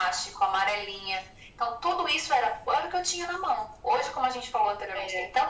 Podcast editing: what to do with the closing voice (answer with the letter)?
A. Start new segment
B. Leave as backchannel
B